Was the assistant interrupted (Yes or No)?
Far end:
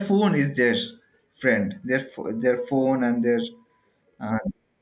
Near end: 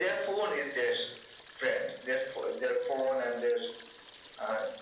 No